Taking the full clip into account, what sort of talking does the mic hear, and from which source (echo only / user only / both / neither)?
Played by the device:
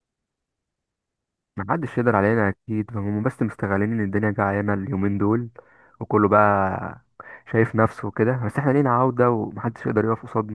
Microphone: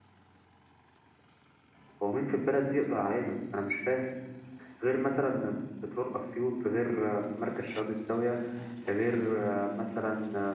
user only